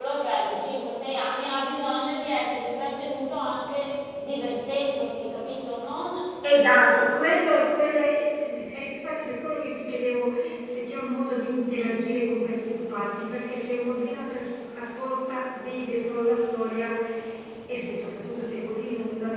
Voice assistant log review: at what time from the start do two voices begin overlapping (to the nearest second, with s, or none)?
none